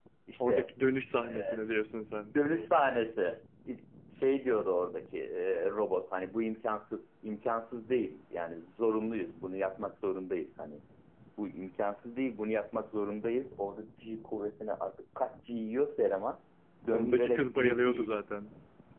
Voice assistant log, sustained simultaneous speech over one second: present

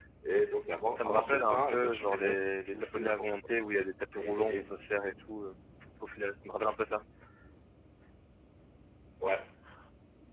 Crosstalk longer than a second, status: present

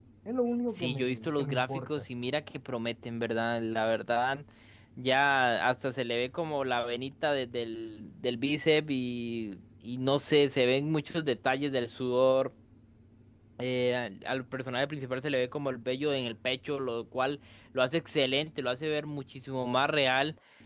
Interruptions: present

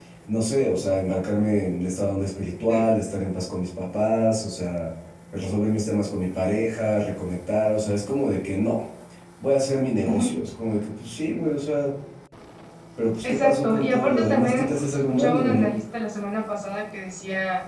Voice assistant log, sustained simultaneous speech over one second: present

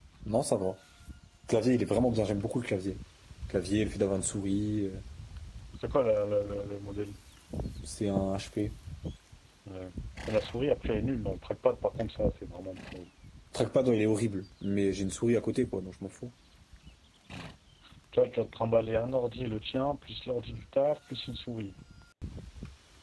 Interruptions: none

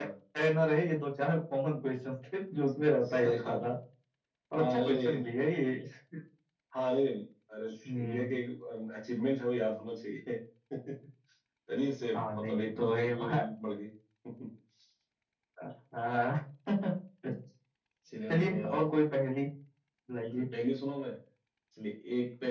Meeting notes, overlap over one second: present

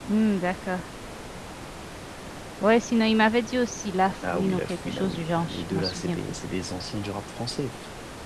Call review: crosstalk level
present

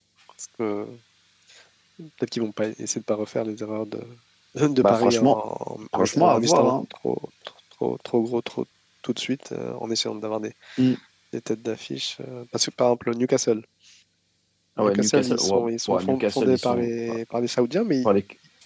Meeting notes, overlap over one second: present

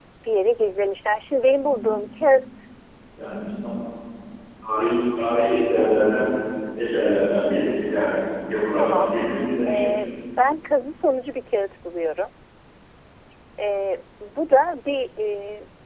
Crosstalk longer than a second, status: none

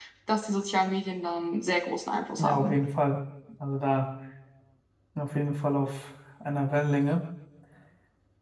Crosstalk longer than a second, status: none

